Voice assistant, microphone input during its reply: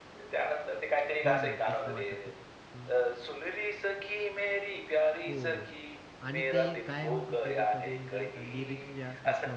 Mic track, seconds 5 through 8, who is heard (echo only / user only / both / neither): both